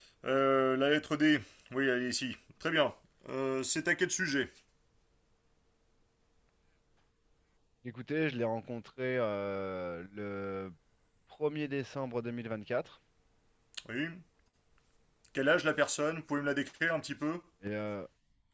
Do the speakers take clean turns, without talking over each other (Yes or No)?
Yes